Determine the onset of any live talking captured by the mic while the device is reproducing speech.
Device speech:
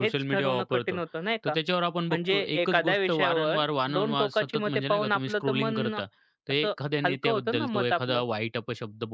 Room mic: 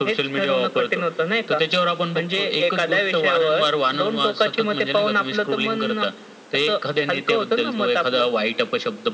none

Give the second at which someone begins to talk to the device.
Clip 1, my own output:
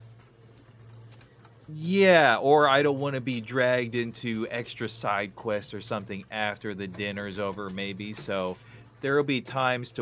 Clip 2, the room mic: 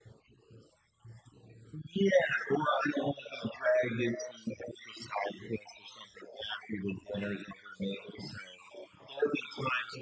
none

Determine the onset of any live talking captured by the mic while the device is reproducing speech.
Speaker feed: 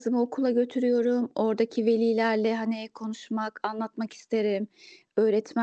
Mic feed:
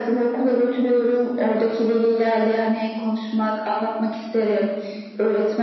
none

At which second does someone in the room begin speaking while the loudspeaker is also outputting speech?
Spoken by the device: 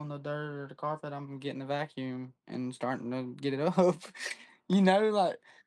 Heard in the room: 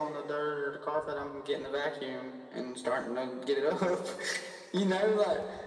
none

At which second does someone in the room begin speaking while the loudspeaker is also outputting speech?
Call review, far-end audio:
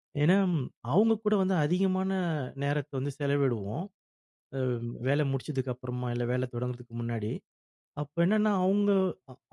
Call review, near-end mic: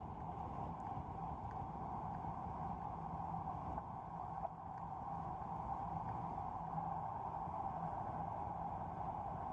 none

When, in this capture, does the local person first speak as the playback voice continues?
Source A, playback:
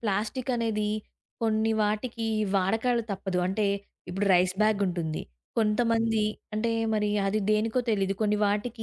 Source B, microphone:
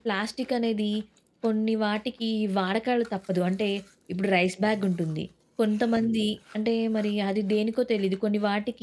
none

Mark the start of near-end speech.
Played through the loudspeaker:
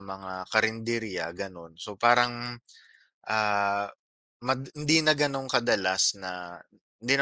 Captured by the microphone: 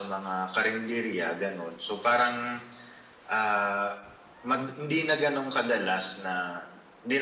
none

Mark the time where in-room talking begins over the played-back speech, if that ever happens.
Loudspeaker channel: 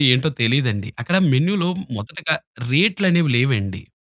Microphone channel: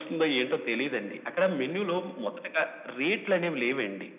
none

